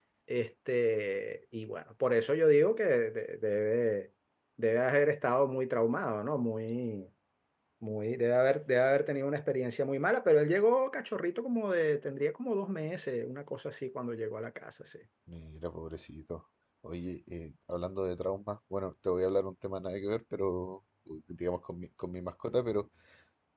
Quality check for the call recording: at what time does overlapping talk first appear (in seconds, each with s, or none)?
none